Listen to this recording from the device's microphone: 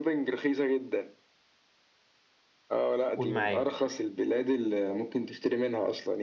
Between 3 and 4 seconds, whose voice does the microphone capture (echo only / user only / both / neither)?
both